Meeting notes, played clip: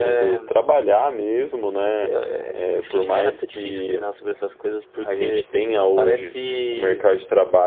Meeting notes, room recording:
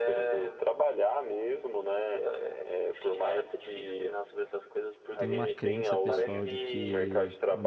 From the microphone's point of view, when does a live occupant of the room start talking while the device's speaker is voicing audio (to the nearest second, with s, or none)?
5 s